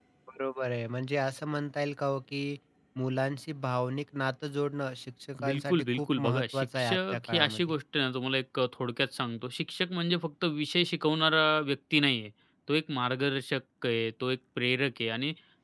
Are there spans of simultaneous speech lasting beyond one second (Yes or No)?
Yes